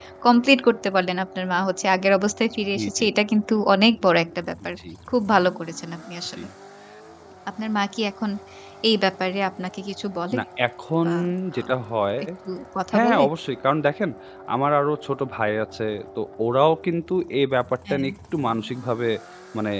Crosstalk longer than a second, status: none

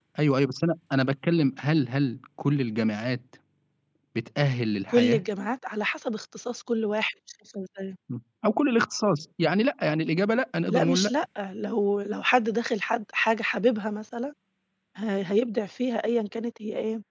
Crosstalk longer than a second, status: none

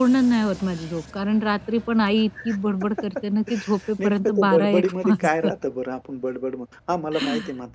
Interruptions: present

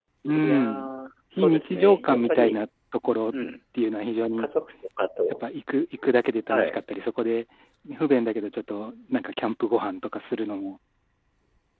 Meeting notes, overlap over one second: present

